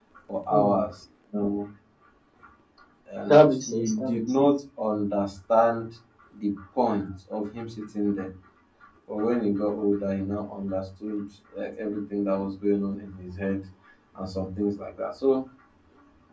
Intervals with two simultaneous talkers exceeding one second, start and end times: 3.2-4.5

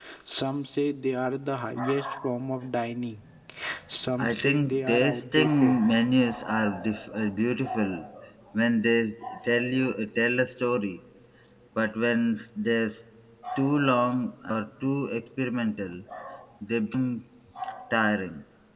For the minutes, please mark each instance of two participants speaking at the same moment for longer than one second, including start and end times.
4.2-5.5

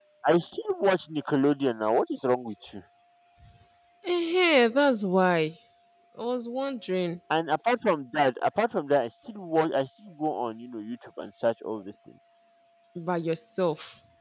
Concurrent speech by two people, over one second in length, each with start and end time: none

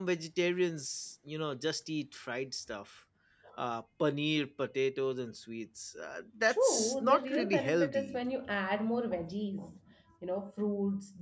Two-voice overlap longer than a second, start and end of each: 6.5-8.2

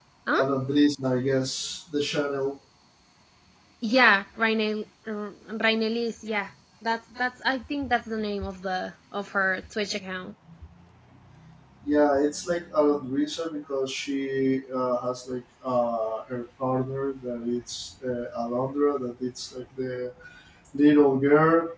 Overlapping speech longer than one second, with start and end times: none

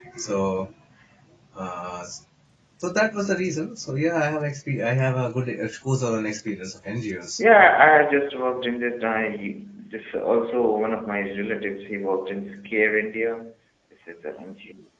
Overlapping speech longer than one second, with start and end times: none

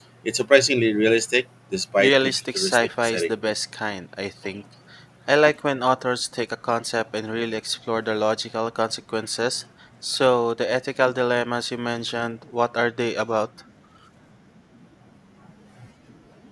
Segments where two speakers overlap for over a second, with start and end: 2.0-3.3

